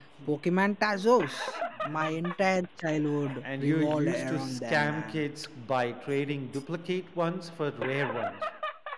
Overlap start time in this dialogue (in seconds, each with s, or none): 3.4 s